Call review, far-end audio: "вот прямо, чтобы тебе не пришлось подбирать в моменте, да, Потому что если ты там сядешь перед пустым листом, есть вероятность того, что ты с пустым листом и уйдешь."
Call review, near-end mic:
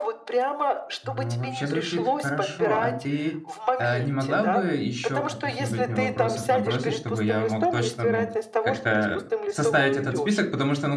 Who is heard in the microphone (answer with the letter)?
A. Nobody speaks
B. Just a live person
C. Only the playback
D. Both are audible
D